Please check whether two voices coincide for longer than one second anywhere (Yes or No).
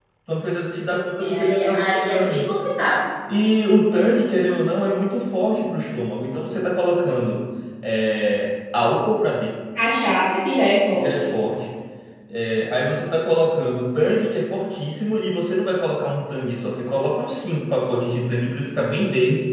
Yes